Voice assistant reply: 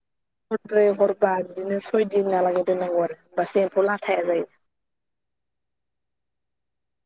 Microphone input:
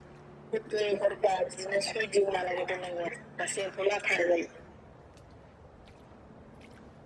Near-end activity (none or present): none